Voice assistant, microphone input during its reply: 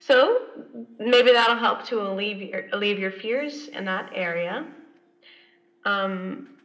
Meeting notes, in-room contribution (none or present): none